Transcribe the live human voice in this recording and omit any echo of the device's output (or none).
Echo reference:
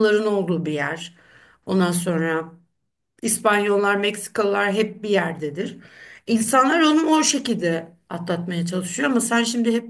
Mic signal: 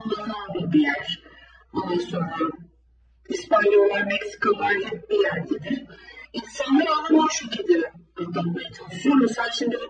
none